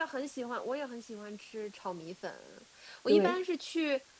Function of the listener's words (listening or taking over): listening